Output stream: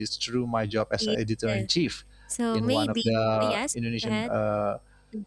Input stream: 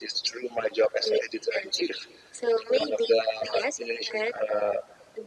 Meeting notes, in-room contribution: none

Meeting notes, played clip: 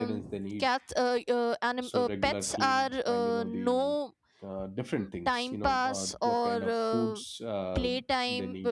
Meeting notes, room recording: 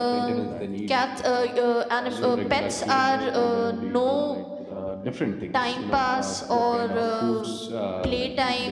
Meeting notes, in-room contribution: present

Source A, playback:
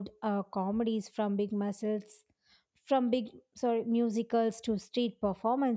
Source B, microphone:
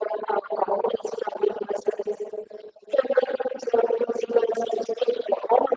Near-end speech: none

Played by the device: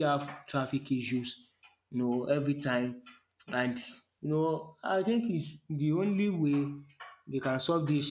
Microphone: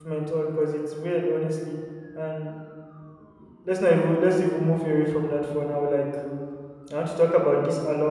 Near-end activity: present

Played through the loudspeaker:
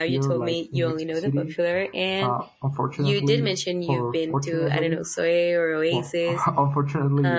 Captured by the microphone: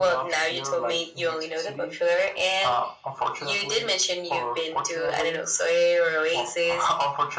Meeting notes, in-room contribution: none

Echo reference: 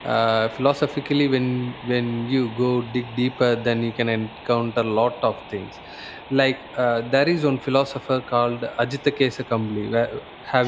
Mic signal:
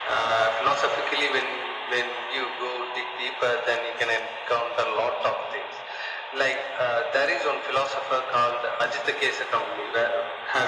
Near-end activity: none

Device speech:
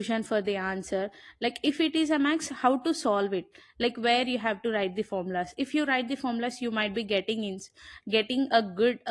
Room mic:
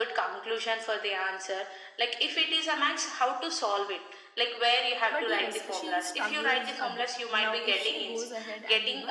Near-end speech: present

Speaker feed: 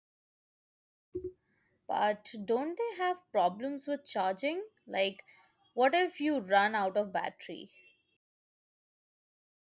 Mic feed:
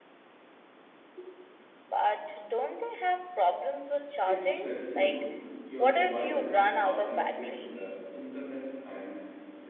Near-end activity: present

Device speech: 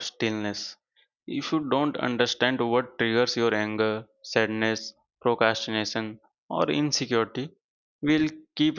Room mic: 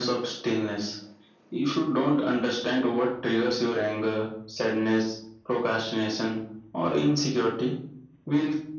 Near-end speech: none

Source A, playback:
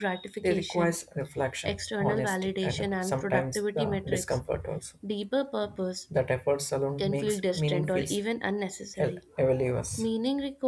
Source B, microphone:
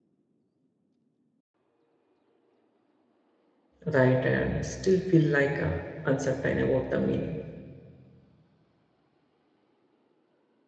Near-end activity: present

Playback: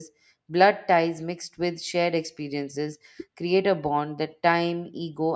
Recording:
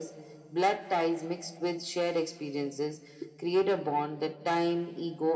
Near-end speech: none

